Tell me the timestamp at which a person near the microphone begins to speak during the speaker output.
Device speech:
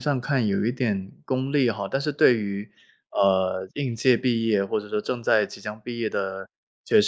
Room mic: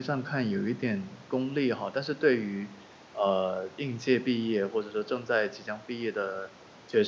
none

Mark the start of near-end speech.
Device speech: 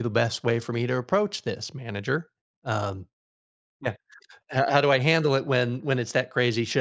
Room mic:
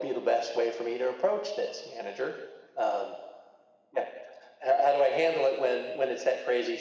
none

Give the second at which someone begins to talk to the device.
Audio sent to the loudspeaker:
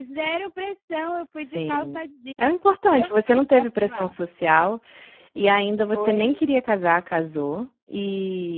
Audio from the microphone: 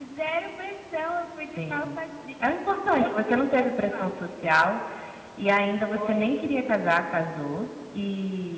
none

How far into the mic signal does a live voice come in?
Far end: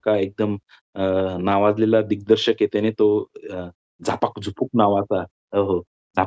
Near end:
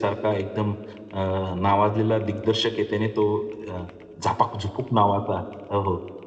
none

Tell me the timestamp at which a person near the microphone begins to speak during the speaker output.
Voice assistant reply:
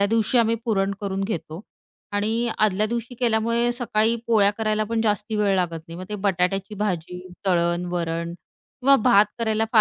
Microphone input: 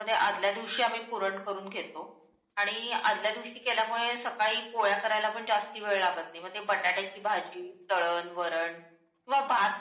none

